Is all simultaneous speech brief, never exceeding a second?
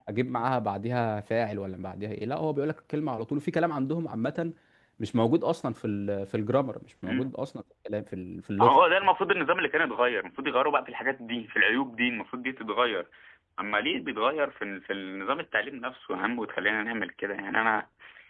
Yes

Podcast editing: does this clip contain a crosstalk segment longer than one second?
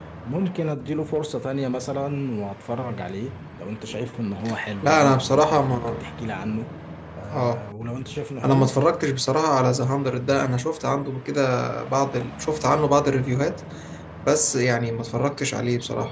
Yes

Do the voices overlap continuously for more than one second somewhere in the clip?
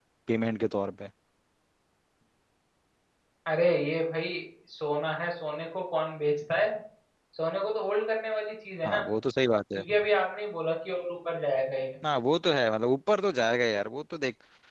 No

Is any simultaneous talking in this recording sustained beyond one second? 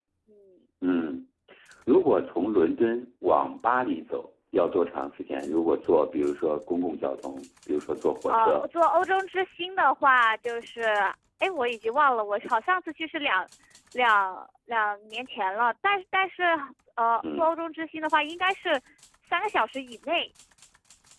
No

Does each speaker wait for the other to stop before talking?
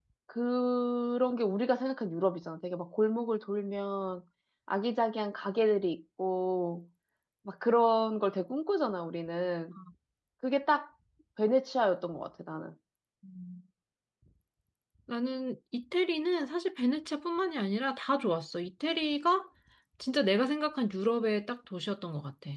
Yes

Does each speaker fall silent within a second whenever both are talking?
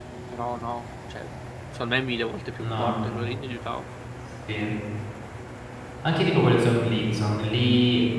Yes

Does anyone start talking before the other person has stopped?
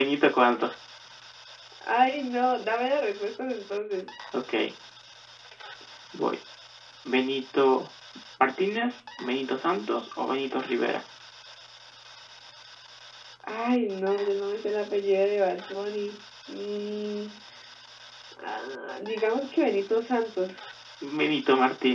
No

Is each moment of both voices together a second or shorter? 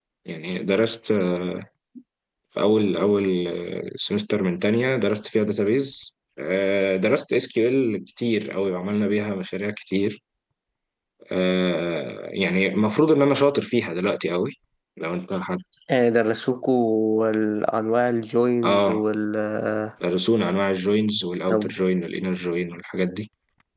Yes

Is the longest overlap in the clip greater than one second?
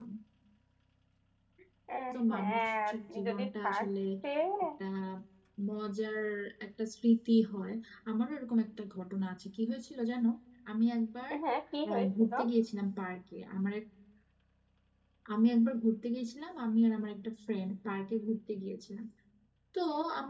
Yes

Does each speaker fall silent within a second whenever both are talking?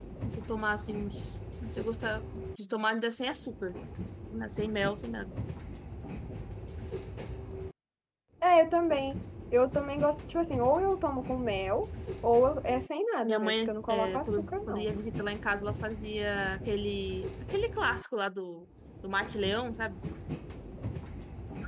No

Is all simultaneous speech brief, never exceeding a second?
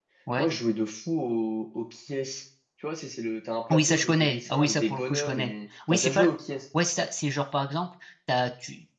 No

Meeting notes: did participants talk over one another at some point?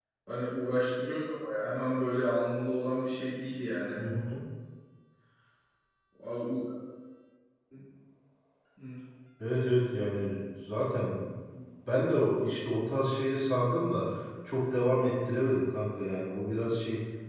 No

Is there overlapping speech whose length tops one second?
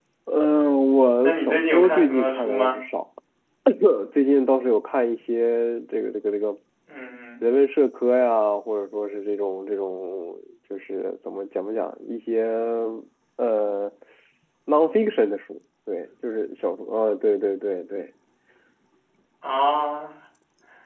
Yes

